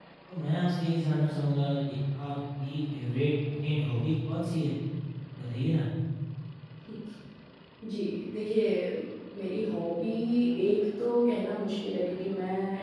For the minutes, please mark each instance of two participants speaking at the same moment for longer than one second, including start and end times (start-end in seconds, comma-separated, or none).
none